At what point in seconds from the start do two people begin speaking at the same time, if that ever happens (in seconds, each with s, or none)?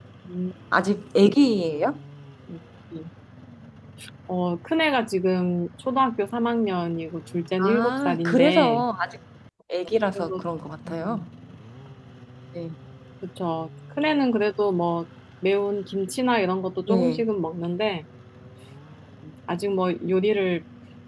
7.6 s